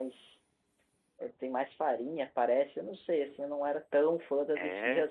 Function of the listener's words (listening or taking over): listening